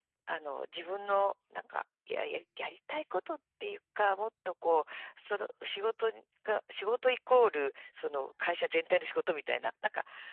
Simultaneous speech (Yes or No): No